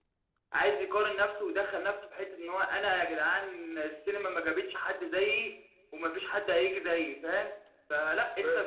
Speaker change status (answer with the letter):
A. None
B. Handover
A